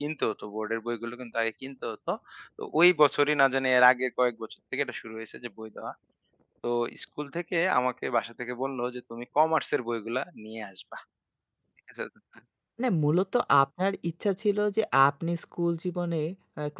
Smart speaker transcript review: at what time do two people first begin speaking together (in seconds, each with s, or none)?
none